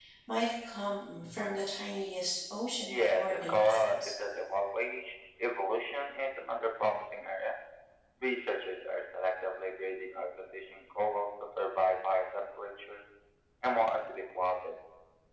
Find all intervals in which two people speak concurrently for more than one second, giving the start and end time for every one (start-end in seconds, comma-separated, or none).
2.8-4.1